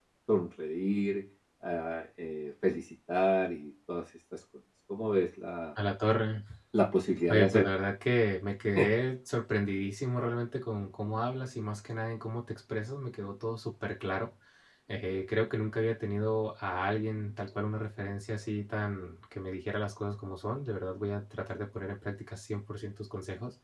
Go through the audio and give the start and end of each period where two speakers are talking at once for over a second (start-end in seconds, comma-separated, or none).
none